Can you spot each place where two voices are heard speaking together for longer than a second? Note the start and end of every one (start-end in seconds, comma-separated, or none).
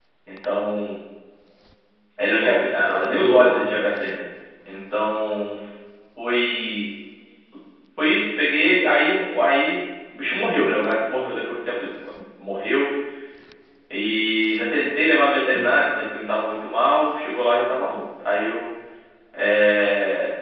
2.2-3.6